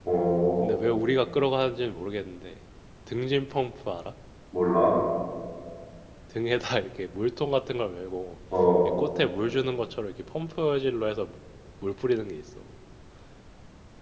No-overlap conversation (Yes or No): Yes